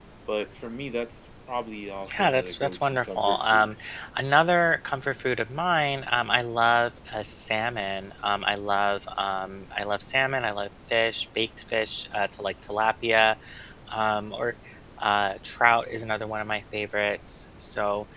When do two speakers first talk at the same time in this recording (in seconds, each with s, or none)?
2.0 s